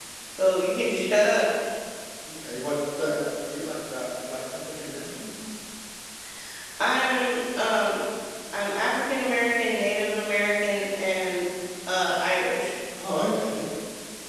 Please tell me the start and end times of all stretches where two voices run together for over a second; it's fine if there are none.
none

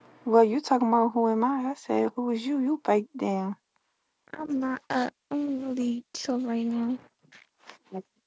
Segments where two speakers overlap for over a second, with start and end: none

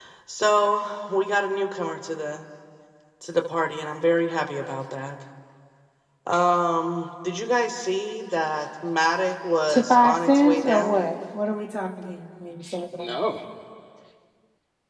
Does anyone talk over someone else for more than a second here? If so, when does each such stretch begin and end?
9.7-11.0

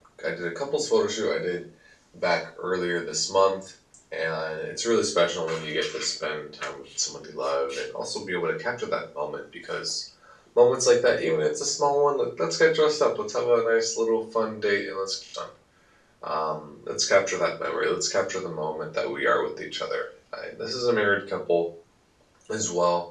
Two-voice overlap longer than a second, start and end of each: none

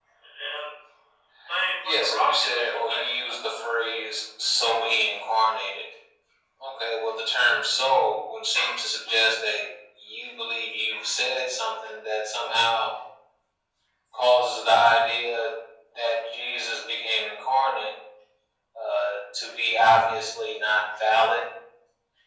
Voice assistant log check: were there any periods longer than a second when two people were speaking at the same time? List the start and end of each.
1.8-3.1

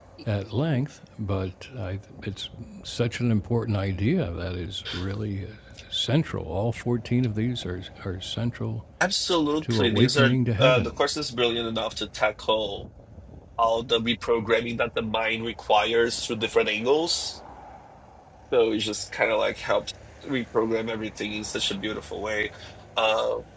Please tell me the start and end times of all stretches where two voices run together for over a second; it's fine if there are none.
9.6-10.9

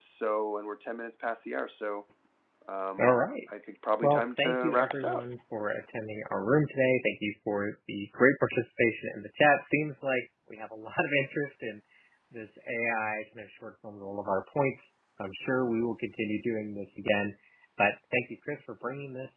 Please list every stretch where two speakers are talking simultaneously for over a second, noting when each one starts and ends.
4.0-5.2

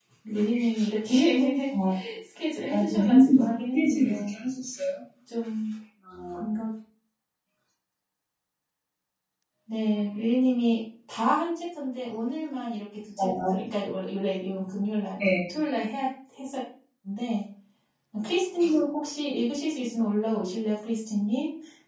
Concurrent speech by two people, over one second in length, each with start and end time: 2.7-4.3

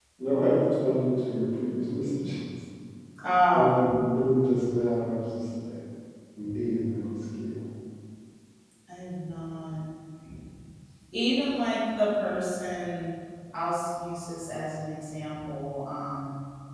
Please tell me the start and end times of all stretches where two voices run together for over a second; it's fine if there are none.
none

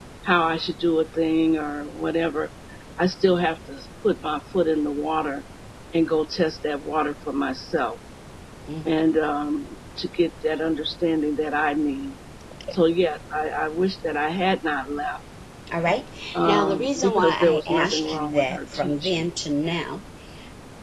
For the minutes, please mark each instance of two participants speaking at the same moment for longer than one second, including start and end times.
16.4-19.3

